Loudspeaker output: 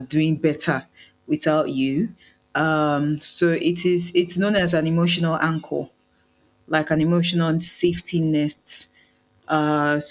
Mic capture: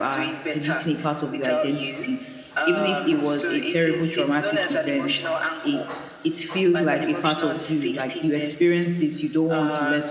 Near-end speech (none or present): present